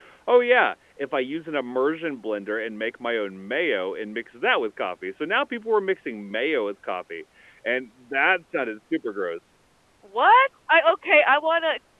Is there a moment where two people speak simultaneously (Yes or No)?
No